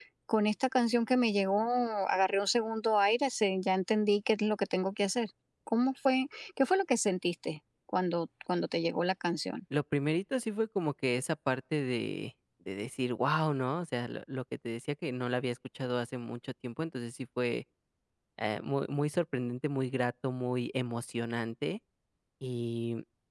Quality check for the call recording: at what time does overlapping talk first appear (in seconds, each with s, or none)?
none